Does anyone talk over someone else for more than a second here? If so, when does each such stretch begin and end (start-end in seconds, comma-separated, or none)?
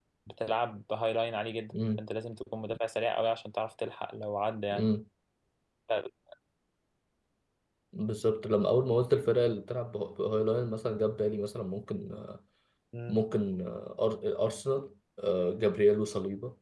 none